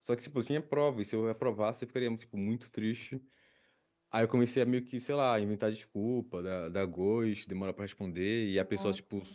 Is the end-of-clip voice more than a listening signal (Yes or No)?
No